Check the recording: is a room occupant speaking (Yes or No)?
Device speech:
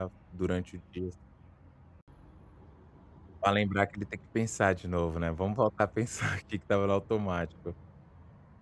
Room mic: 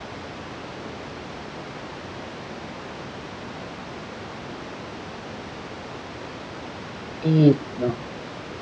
Yes